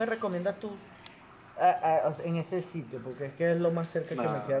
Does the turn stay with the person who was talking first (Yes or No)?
No